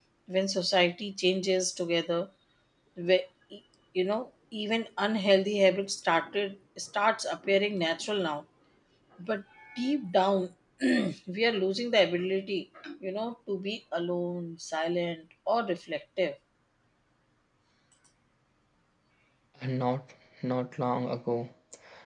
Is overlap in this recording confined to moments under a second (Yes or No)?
Yes